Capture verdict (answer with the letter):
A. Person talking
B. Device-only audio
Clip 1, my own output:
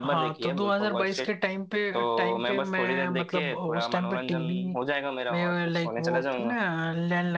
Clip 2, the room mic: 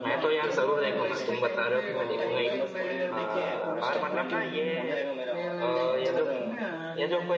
A